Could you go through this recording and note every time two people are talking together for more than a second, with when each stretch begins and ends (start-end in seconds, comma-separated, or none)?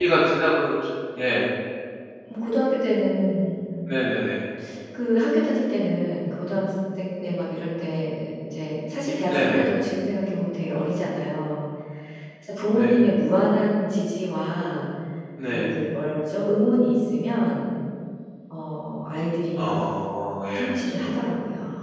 none